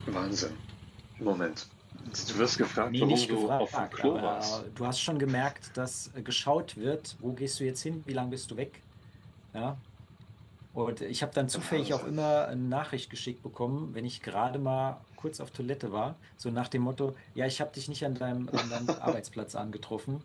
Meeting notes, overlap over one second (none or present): present